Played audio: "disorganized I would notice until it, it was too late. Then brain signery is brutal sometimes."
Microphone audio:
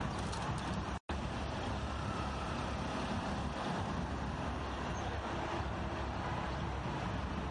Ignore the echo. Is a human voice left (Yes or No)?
No